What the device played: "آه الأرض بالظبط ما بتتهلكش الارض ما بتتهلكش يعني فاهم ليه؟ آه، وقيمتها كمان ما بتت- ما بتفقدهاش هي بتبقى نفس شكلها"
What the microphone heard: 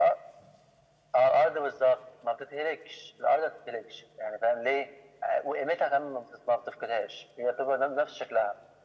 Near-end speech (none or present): none